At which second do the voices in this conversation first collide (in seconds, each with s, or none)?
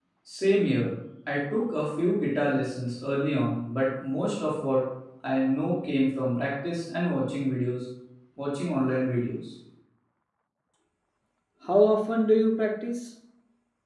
none